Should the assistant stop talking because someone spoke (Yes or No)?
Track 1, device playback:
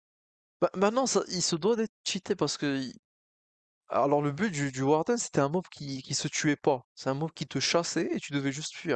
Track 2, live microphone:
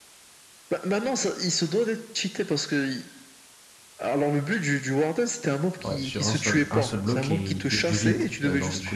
Yes